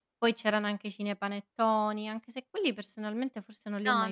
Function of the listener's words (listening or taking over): taking over